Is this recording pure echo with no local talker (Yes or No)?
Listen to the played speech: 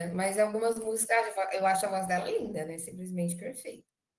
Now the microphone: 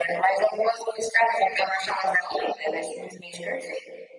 Yes